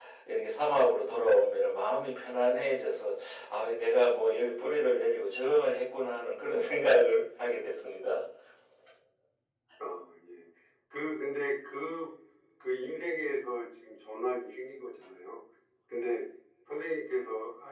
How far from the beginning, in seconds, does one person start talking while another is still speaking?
none

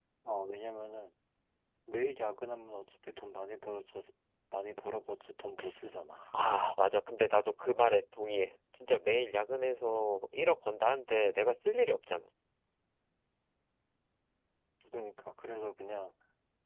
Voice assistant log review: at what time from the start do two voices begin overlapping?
none

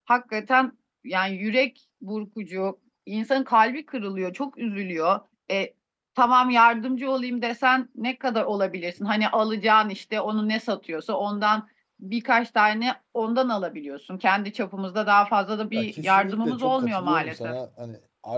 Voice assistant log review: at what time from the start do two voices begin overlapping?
15.7 s

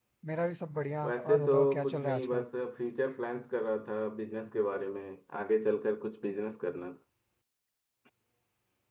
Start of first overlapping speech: 1.0 s

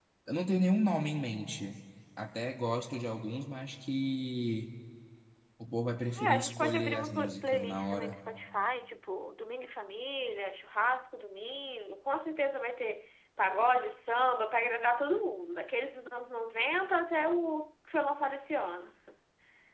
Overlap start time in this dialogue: 6.2 s

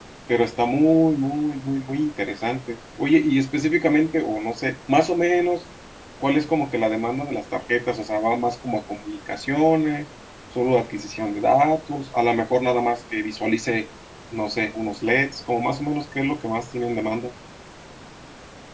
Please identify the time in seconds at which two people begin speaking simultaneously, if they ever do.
none

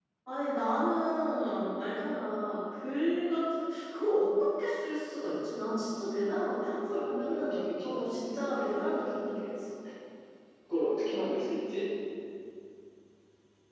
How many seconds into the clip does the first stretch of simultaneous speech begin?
6.9 s

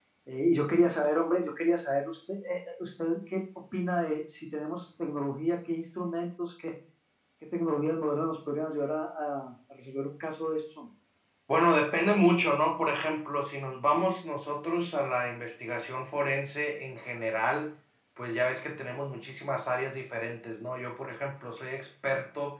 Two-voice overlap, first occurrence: none

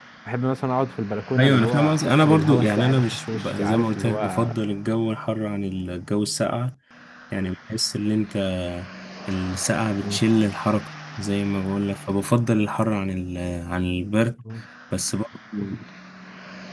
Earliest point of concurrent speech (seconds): 1.3 s

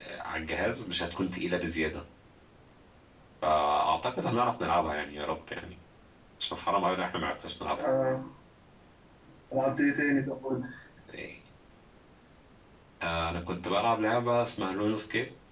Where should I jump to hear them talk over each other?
none

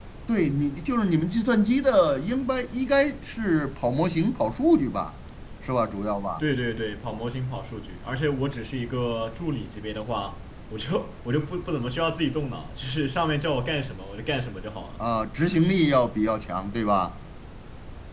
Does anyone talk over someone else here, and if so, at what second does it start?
none

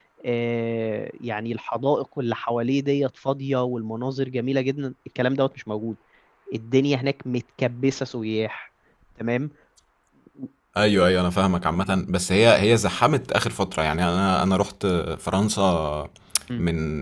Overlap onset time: none

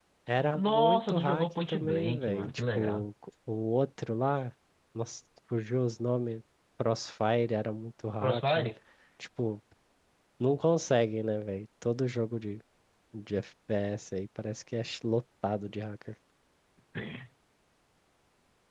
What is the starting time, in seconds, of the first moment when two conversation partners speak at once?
0.5 s

